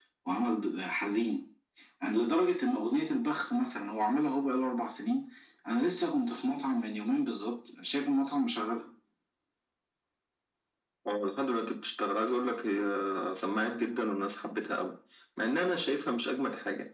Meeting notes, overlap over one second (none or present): none